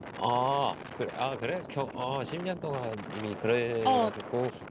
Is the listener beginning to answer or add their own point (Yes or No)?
Yes